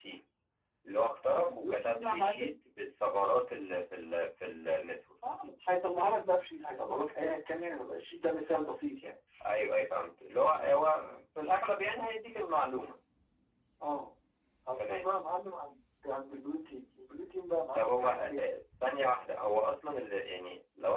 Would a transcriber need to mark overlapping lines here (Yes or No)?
Yes